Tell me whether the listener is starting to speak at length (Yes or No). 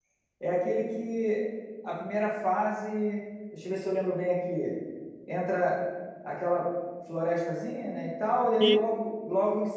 No